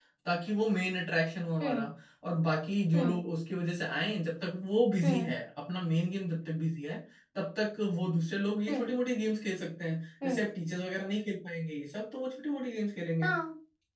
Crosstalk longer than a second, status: none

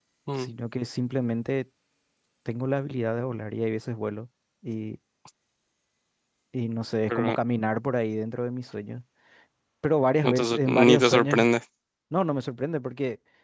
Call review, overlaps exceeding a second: present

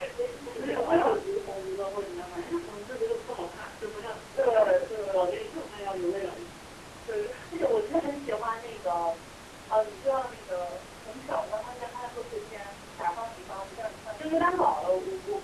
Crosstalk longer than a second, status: present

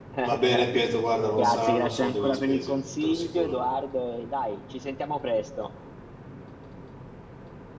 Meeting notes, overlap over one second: present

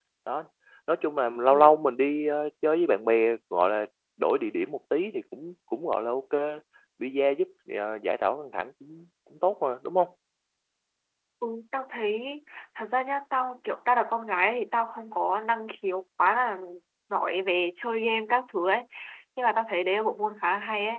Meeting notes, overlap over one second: none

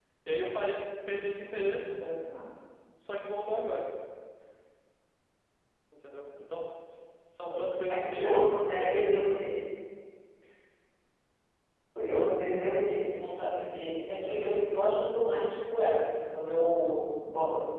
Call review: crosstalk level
present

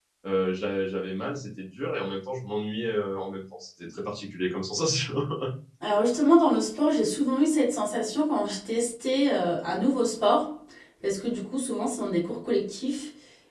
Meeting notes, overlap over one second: none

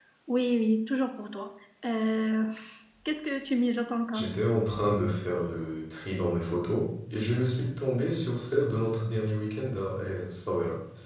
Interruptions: none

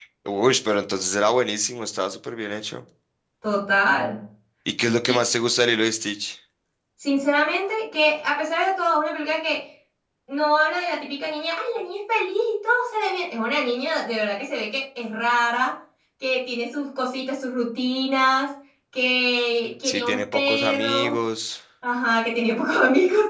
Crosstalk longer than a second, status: present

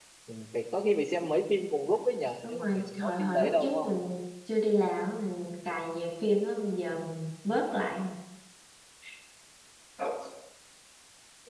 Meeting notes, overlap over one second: present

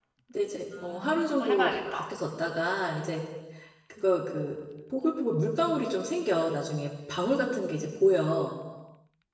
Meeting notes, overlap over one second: present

